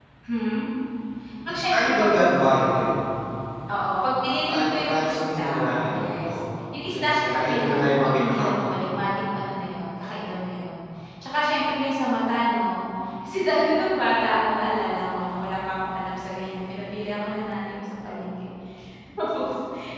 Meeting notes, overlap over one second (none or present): present